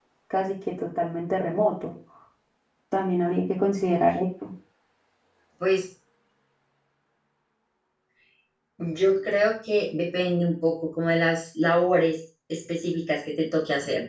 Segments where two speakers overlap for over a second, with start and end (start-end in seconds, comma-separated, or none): none